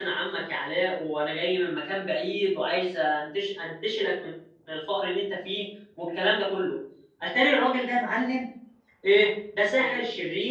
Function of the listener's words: listening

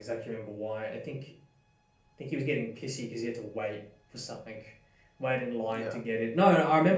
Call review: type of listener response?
listening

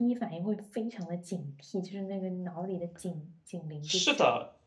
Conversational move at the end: taking over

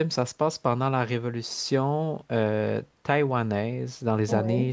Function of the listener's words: listening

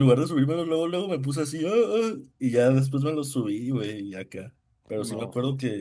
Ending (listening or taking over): listening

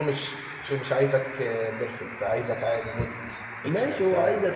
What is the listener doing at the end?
taking over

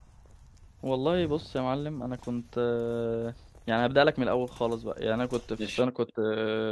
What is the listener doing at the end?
listening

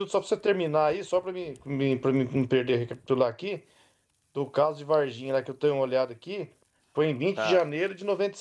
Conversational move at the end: listening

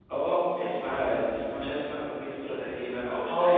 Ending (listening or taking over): taking over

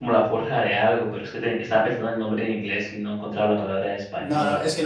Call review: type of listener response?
taking over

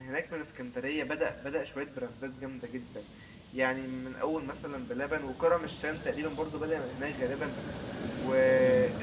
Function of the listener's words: listening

